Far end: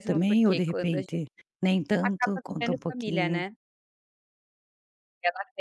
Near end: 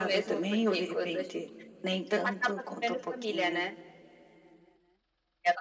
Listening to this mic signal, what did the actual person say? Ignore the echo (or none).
none